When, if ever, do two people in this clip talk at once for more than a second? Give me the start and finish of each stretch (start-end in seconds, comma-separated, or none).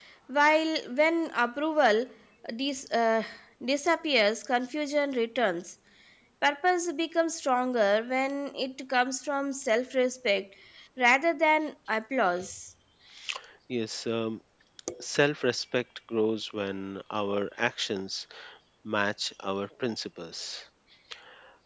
none